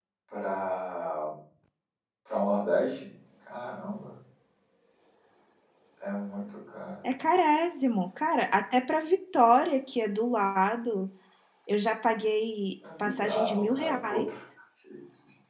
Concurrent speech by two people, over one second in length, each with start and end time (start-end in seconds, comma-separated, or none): 13.0-14.3